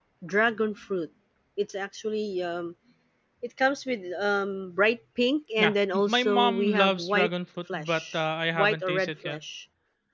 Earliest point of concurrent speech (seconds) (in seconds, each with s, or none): 5.6 s